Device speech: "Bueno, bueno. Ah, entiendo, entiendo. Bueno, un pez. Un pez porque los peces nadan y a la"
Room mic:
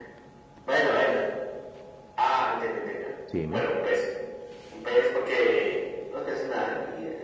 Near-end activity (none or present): present